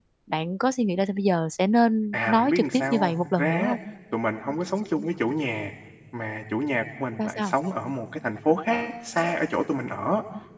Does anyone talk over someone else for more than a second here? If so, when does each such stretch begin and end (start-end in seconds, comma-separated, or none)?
2.1-3.8